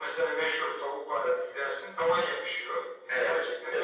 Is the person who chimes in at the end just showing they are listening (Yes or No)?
Yes